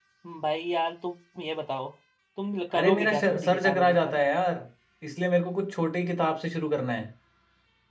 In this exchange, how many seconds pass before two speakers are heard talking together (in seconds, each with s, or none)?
2.7 s